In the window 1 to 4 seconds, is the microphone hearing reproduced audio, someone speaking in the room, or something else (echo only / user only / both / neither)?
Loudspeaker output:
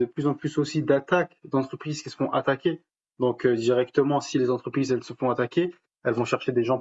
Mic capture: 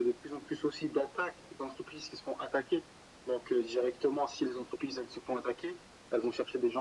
echo only